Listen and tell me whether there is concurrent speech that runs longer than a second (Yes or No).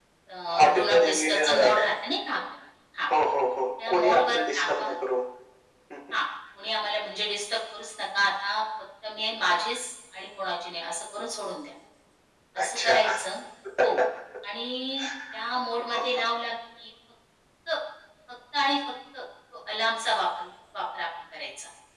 Yes